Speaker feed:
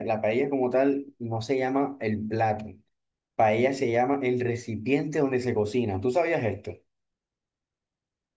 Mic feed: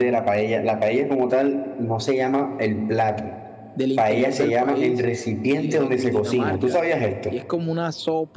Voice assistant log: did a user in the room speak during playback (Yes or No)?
Yes